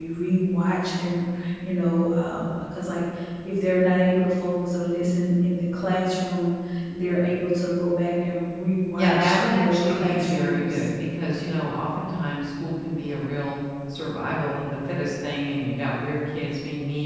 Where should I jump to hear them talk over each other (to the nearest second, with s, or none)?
9 s